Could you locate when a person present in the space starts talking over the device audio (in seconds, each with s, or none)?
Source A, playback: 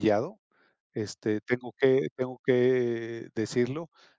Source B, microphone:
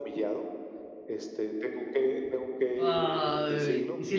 2.8 s